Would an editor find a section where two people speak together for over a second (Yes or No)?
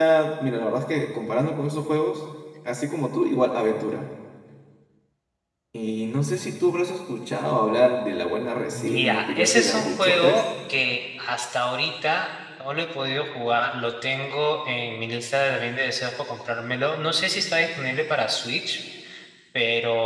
Yes